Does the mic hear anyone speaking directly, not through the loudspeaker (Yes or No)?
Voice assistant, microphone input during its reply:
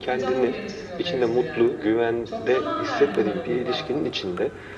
Yes